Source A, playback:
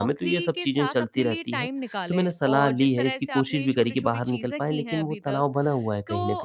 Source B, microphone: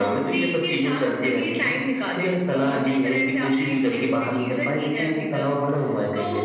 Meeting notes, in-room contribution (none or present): none